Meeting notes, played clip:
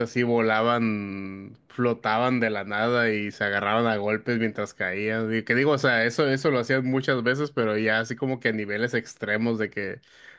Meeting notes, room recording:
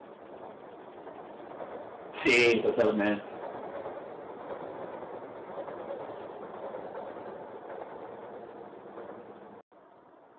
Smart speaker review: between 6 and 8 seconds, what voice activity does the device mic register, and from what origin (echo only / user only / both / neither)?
neither